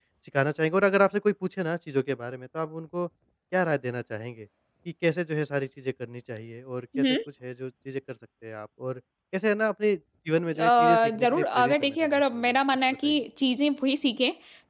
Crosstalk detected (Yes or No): Yes